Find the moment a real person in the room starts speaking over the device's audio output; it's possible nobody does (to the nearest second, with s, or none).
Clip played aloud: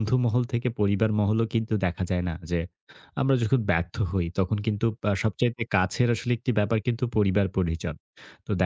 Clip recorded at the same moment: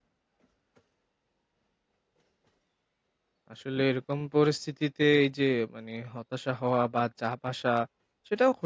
4 s